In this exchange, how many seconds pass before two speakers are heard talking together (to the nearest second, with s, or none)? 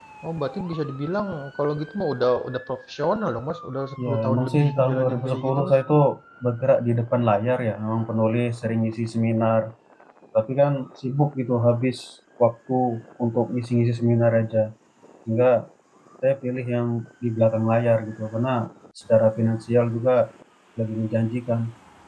4 s